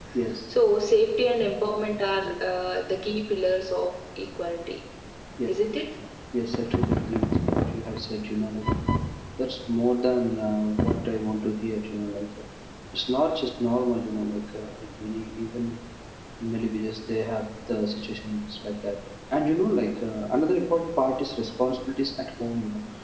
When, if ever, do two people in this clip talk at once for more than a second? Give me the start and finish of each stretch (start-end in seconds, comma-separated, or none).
none